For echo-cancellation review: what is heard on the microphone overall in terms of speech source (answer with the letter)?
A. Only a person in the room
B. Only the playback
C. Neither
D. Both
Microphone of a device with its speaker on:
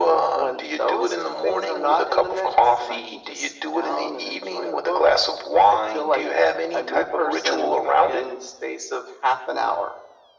B